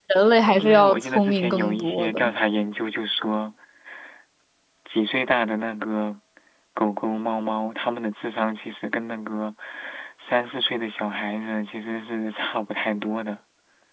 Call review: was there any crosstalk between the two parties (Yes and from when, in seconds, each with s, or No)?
Yes, from 0.6 s